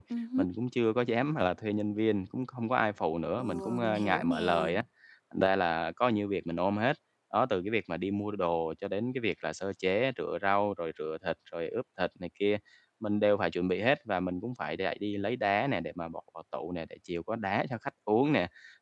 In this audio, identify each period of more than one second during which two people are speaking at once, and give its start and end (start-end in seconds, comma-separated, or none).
3.4-4.7